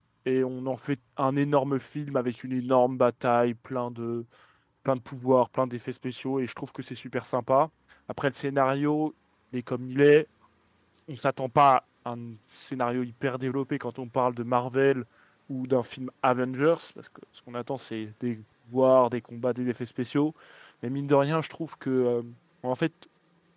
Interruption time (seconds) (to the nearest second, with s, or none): none